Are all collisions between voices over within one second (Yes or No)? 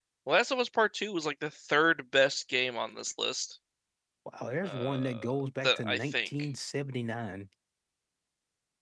No